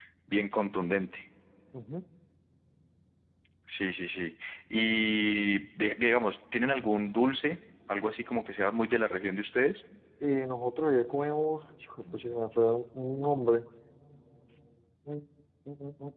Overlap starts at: none

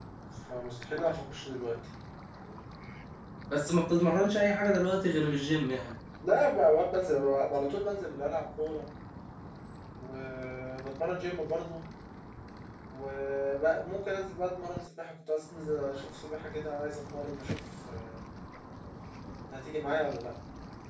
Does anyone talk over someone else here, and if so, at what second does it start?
none

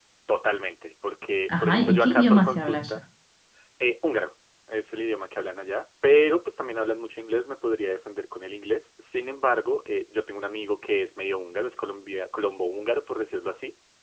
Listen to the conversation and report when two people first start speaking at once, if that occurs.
1 s

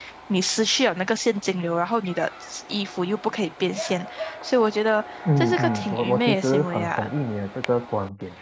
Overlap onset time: 5 s

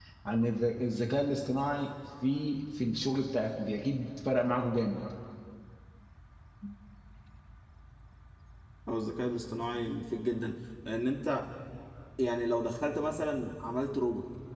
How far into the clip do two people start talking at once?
none

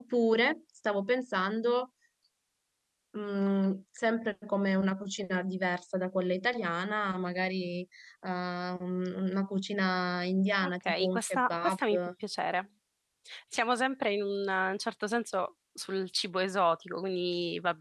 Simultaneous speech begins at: 11 s

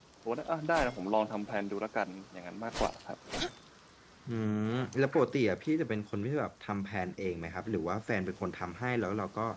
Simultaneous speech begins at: none

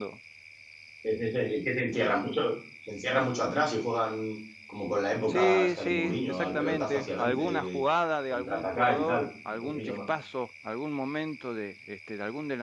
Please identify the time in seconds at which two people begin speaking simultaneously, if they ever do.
5 s

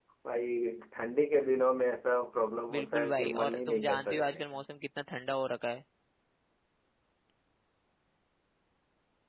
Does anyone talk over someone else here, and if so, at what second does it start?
3 s

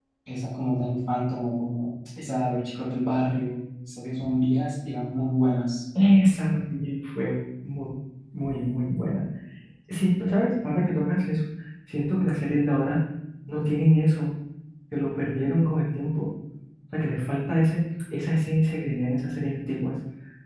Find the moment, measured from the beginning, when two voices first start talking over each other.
none

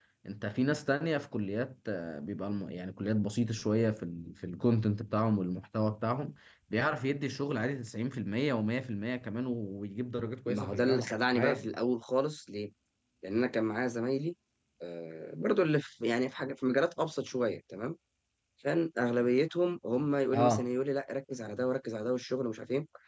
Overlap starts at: 10 s

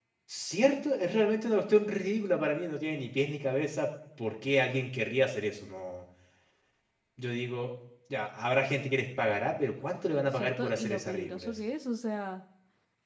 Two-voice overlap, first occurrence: 10 s

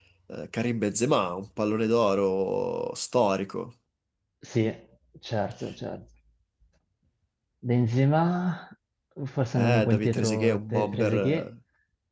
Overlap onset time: 10 s

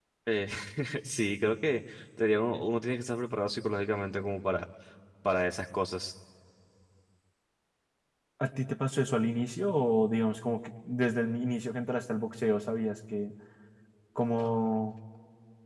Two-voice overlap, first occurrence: none

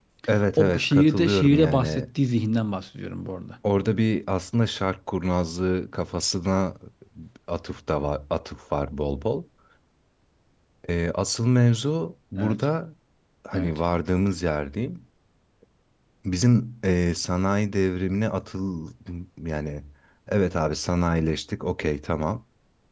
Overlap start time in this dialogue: 1 s

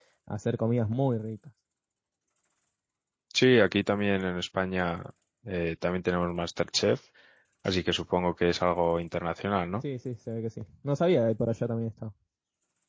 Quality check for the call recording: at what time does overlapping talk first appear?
none

